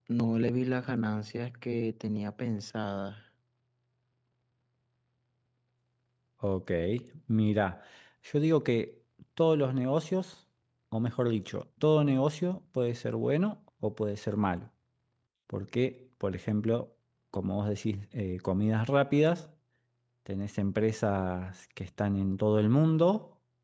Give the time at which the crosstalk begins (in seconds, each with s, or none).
none